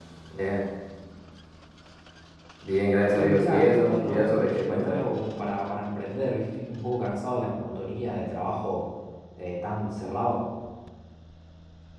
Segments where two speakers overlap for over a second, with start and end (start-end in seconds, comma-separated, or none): 3.1-5.1